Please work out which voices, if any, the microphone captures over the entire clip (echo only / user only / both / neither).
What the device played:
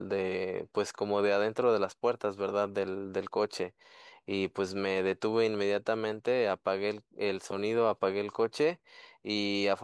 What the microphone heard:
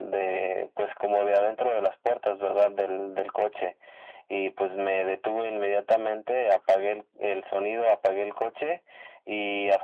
echo only